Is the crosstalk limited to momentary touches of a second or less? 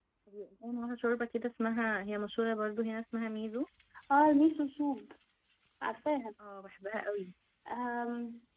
Yes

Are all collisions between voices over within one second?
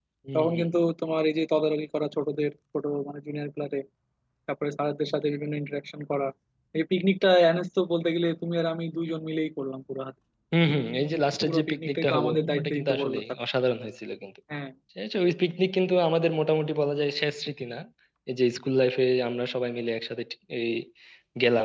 No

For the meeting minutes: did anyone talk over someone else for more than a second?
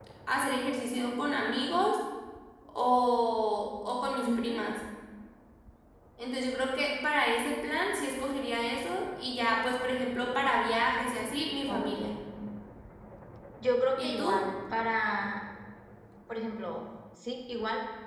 No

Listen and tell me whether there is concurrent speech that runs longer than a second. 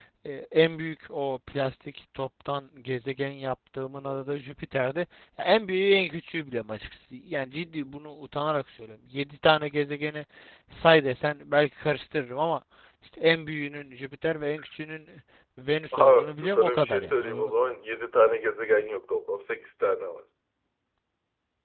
Yes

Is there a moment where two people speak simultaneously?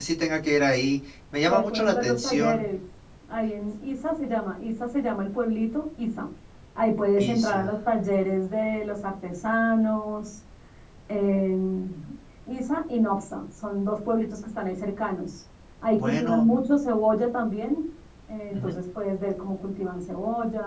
Yes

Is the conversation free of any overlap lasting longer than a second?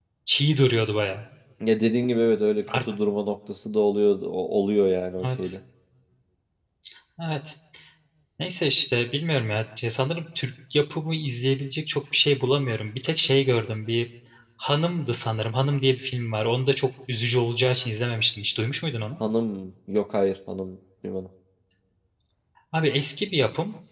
Yes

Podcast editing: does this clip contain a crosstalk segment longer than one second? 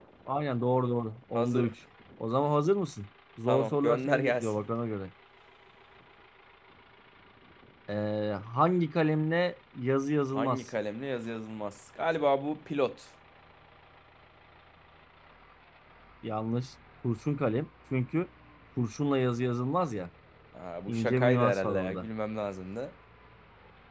Yes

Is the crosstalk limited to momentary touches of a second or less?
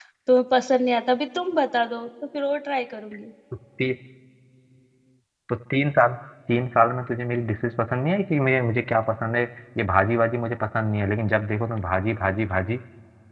Yes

